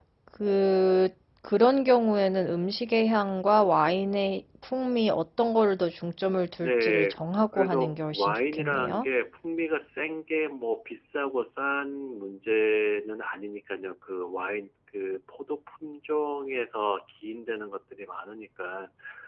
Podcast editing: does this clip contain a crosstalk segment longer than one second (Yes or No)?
Yes